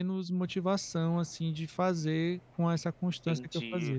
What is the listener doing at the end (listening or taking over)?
taking over